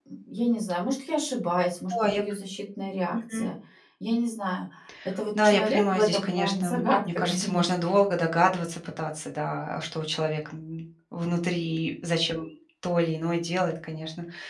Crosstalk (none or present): present